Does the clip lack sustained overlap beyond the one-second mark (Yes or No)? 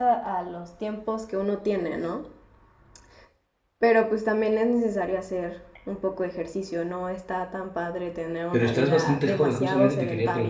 No